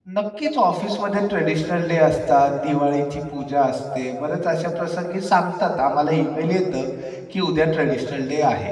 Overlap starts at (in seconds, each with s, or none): none